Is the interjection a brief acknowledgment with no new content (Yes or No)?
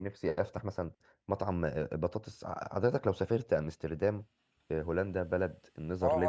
No